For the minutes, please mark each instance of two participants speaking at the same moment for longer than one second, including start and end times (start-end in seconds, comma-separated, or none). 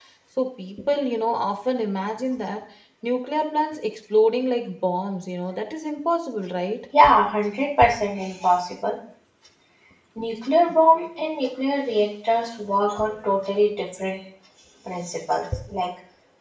none